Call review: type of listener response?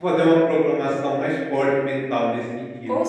taking over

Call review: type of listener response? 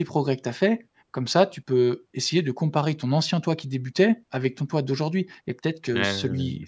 listening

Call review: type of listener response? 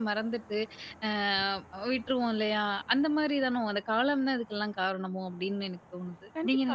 taking over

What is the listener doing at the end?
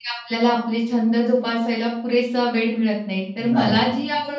listening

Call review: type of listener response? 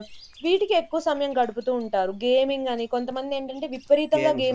listening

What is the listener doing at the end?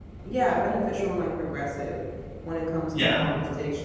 listening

